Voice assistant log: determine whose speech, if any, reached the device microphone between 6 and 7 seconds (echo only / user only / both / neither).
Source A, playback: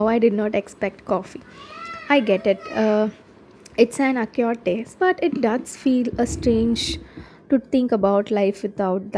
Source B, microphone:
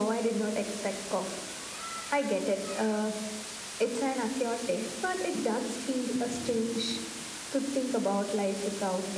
echo only